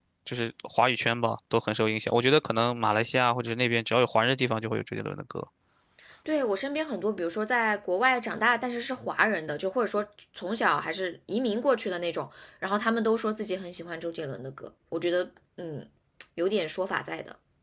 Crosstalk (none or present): none